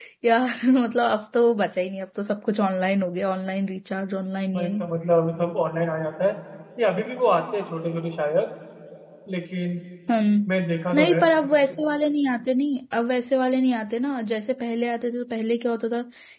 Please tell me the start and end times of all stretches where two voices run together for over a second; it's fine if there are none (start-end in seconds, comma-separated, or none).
none